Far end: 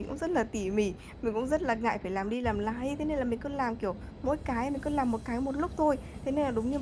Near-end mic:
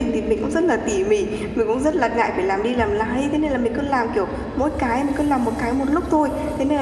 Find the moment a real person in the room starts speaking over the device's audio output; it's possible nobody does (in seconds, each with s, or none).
none